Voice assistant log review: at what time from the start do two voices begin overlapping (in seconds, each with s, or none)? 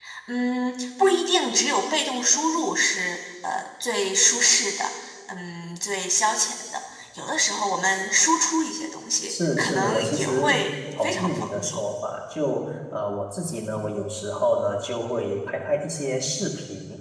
9.3 s